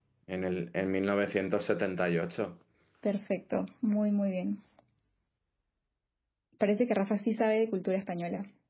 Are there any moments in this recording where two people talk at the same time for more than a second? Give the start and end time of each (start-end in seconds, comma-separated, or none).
none